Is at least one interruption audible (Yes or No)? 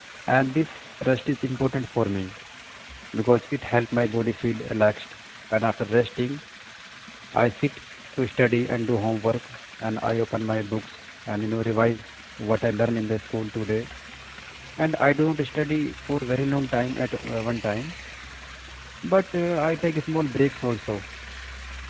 No